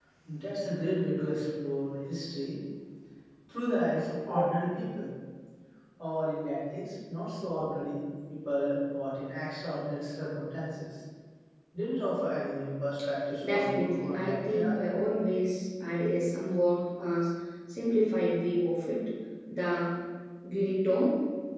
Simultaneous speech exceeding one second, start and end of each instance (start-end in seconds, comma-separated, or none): 13.5-14.7